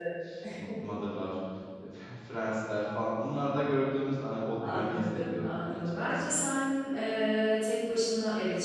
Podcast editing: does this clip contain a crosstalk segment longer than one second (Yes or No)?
Yes